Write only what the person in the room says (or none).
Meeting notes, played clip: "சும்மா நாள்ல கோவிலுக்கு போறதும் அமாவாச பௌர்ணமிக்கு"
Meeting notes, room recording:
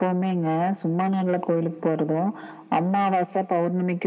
none